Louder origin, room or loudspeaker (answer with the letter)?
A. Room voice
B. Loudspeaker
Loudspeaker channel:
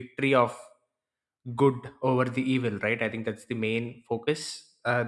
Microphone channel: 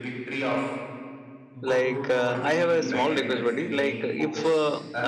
A